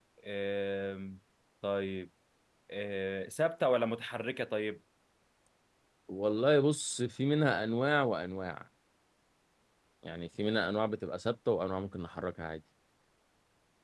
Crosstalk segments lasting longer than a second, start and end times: none

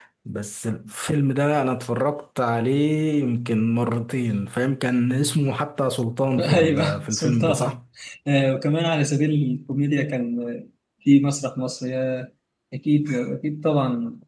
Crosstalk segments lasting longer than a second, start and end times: 6.4-7.7

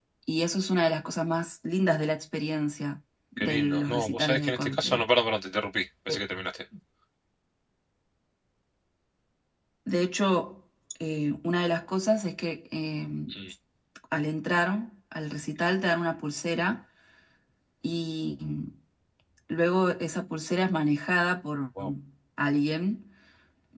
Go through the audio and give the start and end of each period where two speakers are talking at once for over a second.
3.4-5.0

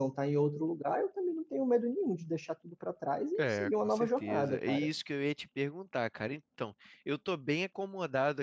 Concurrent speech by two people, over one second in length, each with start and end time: 3.4-4.9

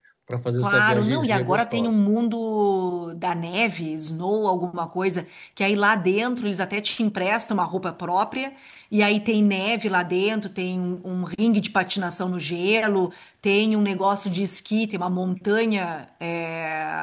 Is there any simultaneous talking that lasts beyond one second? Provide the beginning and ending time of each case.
0.6-1.9

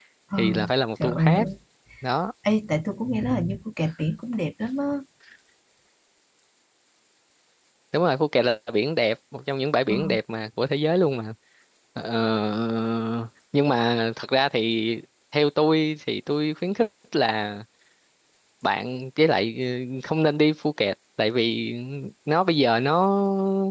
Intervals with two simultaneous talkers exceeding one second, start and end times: none

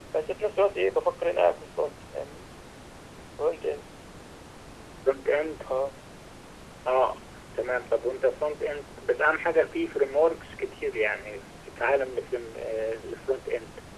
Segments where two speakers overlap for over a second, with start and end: none

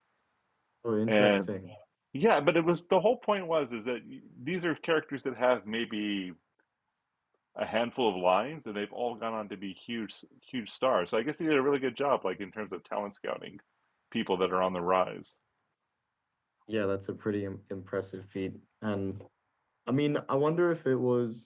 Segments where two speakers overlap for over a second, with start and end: none

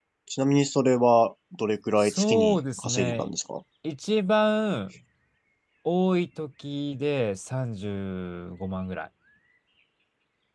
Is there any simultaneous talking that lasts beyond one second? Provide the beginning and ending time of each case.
2.0-3.3

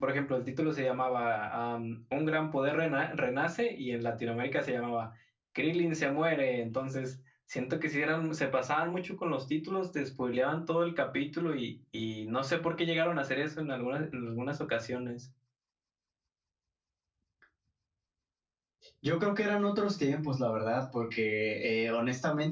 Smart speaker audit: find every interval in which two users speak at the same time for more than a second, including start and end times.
none

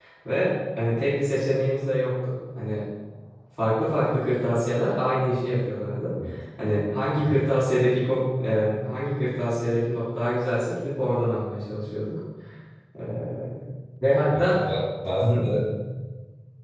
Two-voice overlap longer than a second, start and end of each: none

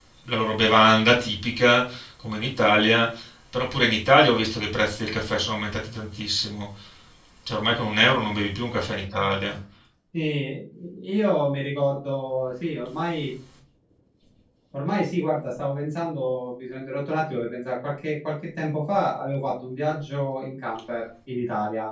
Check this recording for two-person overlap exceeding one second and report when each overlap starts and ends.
none

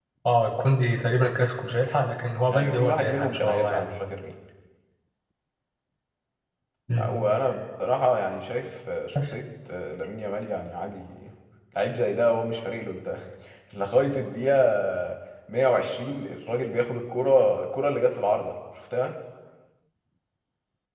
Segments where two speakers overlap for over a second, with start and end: 2.5-3.9

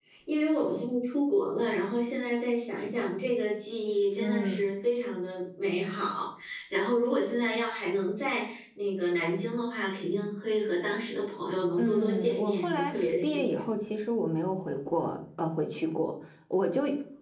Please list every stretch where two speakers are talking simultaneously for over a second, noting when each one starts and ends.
11.8-13.5

